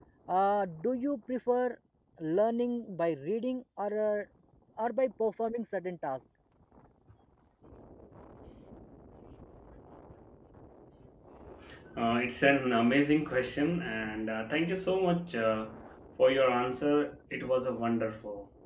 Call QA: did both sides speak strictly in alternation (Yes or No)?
Yes